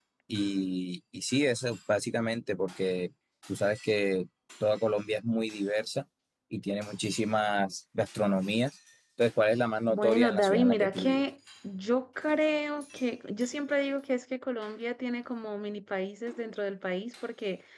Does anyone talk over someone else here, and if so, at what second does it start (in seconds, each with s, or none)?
9.9 s